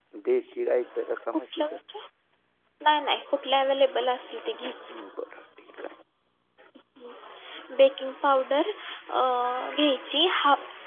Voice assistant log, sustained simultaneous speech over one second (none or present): none